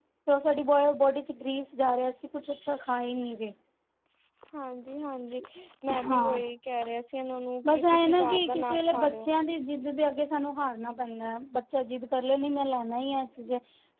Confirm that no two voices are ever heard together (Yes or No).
No